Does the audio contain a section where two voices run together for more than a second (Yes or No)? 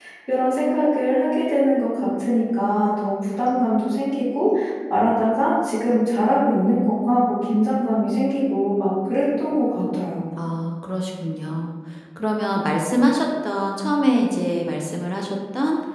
No